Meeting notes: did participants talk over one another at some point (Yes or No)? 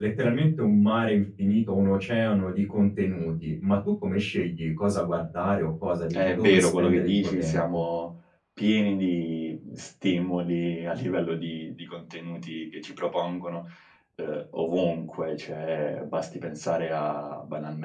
Yes